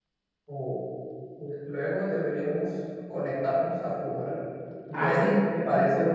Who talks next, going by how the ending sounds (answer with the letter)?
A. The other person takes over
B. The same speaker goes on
A